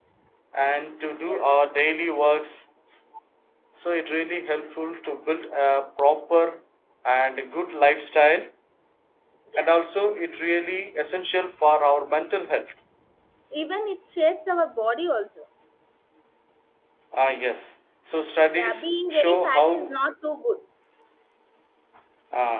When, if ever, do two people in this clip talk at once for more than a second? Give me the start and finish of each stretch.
18.5-19.9

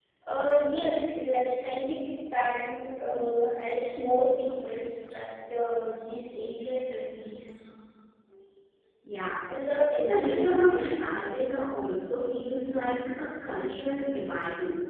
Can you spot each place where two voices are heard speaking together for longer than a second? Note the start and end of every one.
10.0-11.3

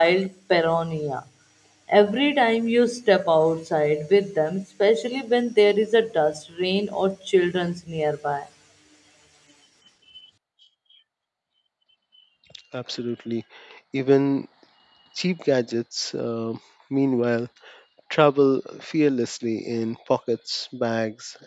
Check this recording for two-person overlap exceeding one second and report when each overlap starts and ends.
none

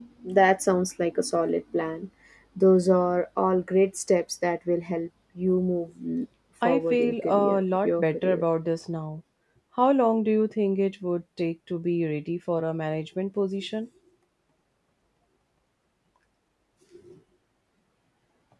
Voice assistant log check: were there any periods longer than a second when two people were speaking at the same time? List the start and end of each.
6.7-8.4

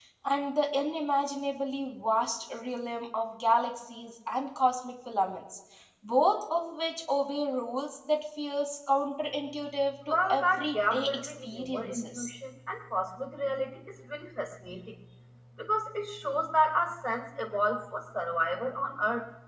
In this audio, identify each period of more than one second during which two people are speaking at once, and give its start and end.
10.1-12.3

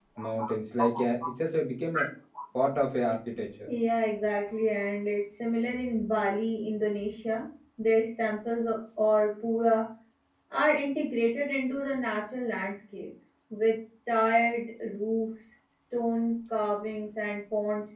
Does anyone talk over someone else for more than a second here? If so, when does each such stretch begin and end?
none

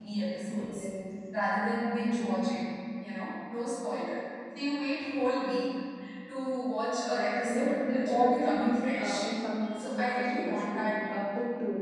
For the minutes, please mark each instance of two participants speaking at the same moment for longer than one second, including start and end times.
7.1-9.3, 9.7-10.9

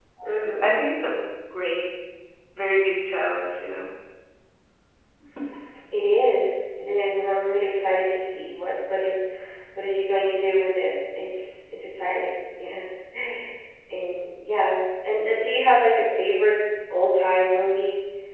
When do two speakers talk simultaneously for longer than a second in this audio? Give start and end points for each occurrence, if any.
none

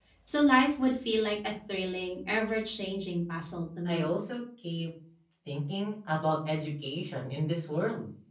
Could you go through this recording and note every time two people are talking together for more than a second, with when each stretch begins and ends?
none

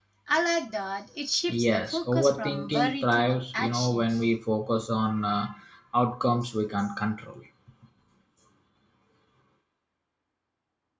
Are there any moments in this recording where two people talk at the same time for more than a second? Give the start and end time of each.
1.5-4.1

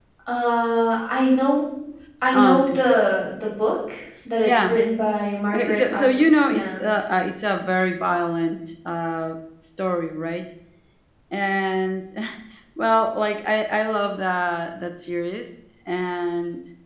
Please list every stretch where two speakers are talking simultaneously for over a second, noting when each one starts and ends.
5.5-6.8

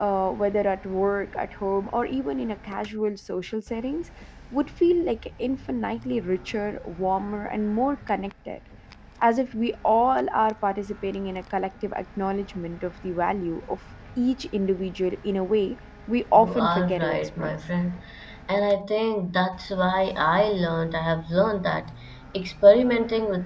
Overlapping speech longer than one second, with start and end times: 16.3-17.6

